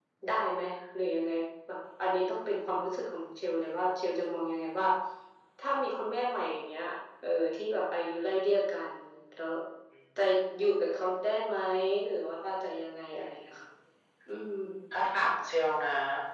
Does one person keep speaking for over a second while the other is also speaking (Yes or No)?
No